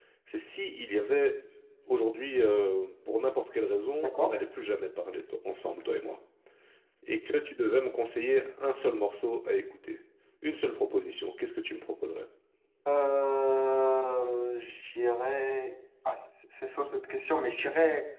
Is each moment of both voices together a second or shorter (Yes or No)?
Yes